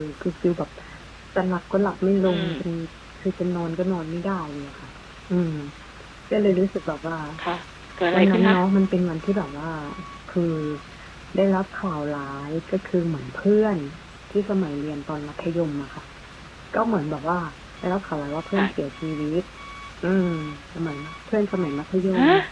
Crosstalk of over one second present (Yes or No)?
No